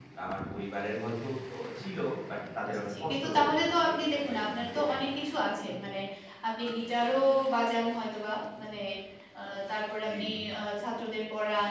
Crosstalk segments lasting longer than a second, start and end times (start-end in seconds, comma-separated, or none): 2.6-5.1